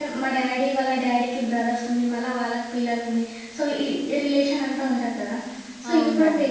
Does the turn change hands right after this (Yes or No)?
No